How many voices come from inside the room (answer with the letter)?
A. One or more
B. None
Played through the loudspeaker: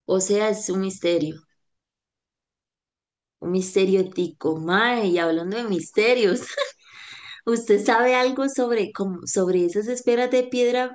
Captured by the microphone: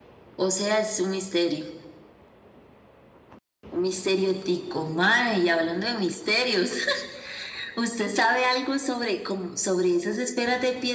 B